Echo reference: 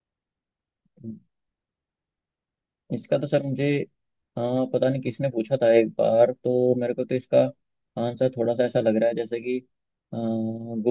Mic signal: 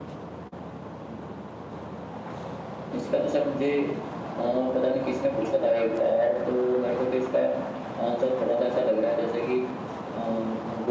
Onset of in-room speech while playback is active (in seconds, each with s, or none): none